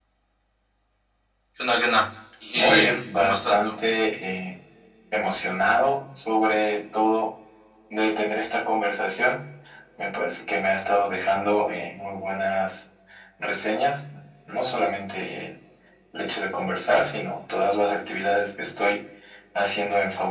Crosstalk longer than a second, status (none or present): present